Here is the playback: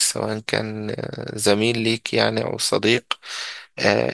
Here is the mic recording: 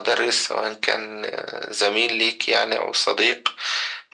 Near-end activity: none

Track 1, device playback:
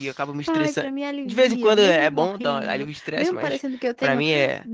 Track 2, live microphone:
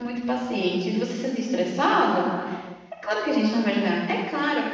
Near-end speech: present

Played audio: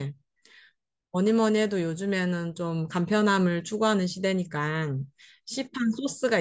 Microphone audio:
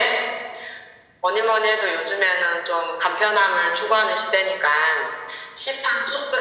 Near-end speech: none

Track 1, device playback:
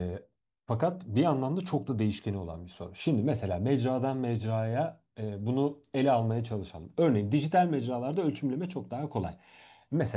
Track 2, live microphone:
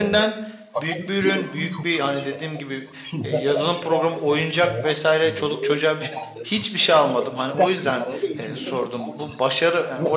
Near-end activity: present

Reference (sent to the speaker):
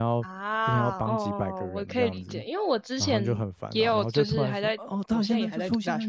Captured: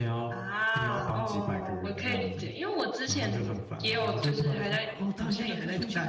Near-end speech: none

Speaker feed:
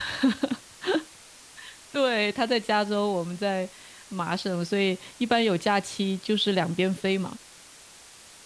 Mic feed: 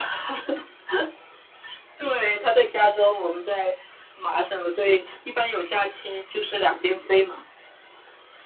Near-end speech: none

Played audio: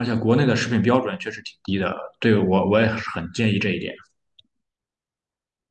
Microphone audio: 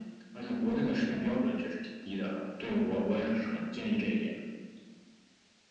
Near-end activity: none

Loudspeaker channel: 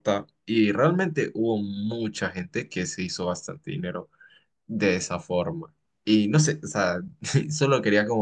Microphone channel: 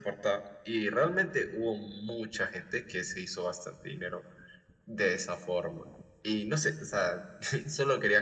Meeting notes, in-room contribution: none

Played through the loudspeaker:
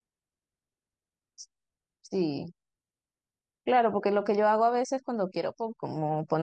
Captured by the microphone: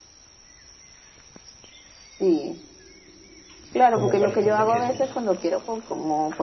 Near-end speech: present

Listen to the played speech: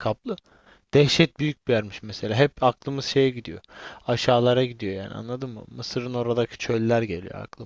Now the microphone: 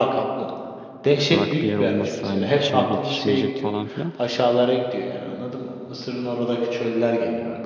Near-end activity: present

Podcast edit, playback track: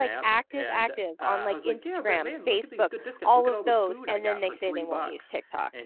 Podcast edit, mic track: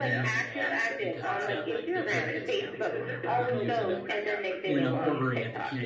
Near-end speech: present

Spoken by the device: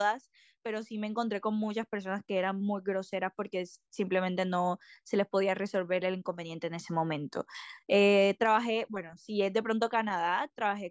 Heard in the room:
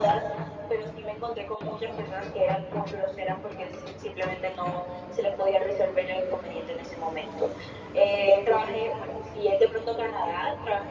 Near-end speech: none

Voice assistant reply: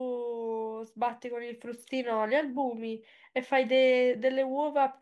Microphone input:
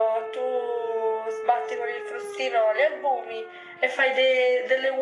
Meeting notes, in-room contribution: none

